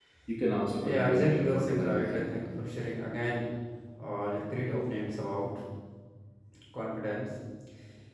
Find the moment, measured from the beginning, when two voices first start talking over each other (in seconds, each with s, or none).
0.8 s